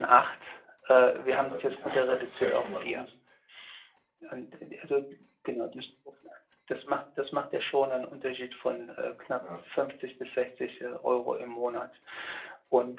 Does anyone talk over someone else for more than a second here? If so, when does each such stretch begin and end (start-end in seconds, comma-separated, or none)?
1.3-3.0